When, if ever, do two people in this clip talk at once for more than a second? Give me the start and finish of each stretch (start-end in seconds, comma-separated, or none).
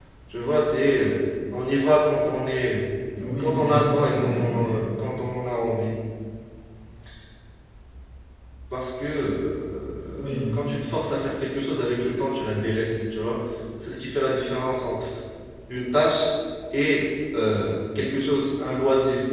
3.4-4.8